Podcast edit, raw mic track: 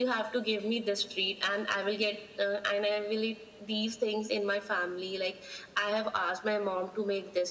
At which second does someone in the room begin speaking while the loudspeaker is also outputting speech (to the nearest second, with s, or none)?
none